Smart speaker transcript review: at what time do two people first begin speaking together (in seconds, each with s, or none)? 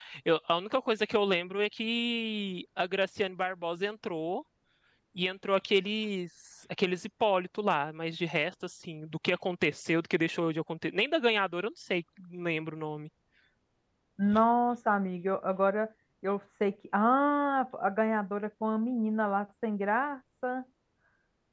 none